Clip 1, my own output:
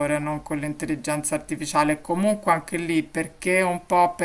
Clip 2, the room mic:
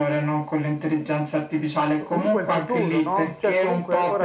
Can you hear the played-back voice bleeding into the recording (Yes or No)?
Yes